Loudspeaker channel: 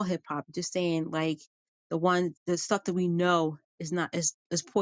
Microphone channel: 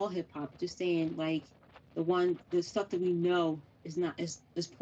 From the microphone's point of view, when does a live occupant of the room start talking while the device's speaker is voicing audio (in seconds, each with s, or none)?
none